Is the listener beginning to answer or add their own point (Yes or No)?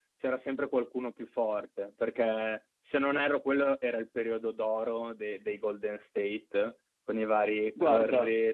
No